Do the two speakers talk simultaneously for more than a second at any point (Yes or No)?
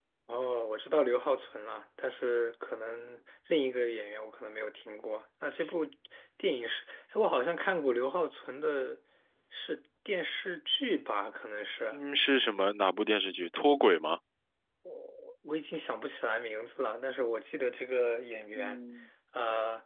No